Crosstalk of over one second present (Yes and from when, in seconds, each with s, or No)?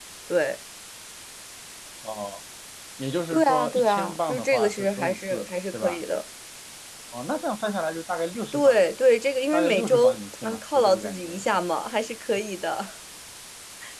Yes, from 3.3 s